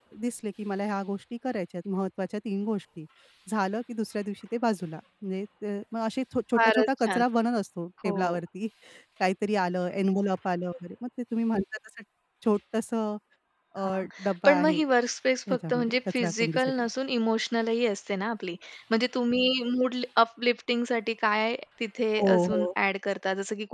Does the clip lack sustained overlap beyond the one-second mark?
No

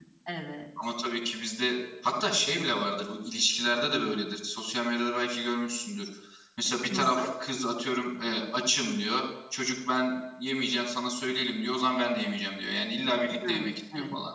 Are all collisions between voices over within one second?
Yes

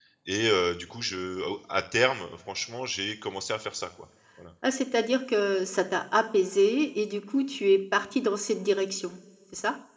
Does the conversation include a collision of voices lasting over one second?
No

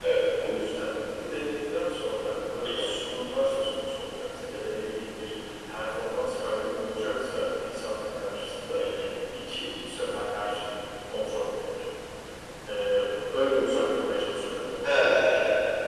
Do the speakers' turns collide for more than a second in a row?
No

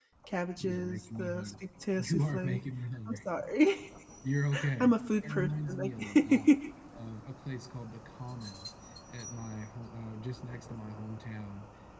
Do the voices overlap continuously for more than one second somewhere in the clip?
Yes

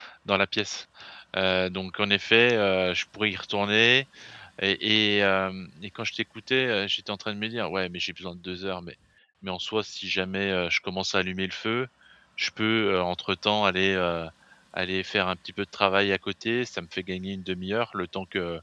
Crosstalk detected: No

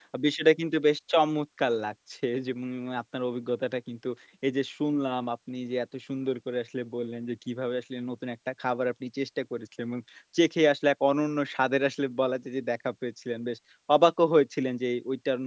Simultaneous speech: No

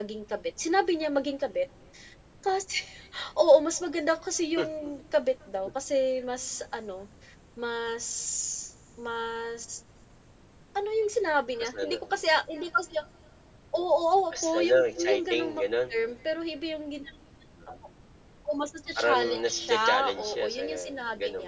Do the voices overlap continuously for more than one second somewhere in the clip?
Yes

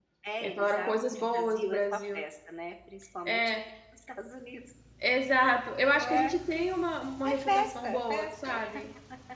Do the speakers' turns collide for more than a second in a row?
Yes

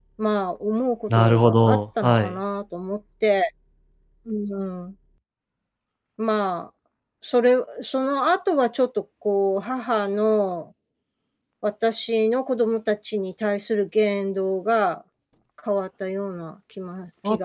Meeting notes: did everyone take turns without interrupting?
No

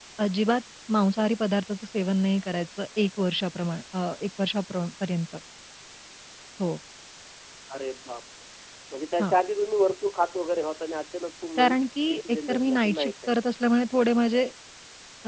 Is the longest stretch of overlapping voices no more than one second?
No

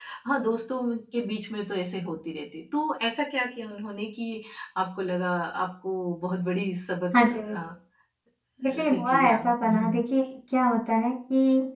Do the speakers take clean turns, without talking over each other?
No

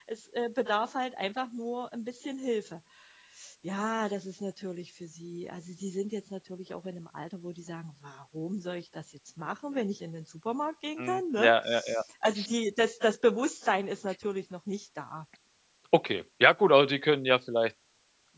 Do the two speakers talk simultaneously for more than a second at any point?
No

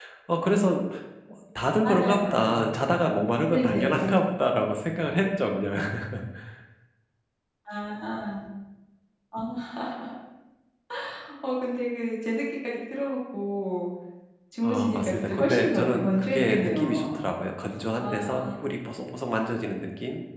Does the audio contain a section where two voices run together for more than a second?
Yes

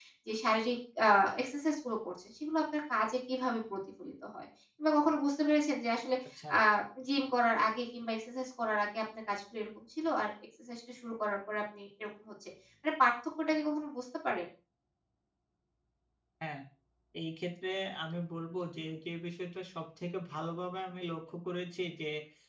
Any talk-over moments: No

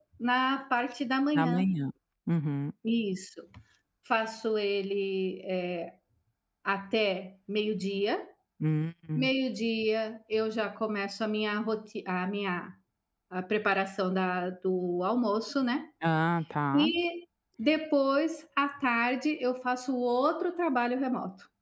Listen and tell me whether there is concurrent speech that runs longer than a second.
No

